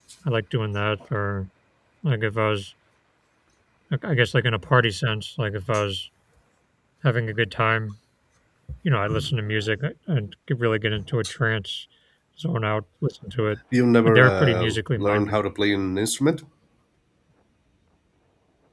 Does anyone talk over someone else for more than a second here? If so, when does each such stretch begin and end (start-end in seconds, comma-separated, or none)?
14.0-15.4